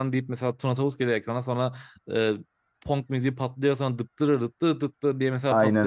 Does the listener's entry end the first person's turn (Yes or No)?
No